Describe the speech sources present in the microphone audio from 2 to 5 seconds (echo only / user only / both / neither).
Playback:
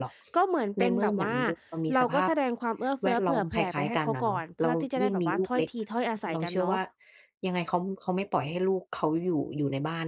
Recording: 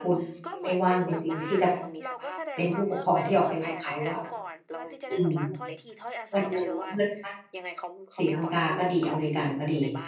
both